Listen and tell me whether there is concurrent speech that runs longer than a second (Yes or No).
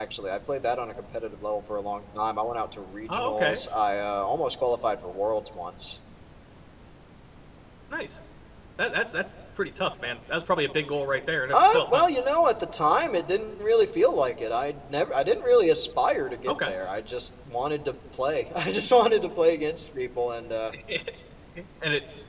No